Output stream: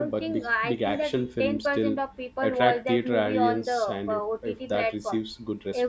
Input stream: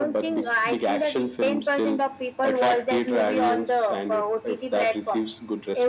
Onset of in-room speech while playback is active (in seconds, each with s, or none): none